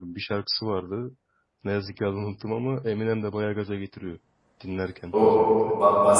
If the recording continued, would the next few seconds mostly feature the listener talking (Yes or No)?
Yes